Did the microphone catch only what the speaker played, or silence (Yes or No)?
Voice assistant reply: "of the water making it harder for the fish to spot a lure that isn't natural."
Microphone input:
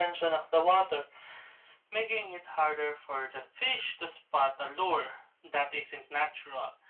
Yes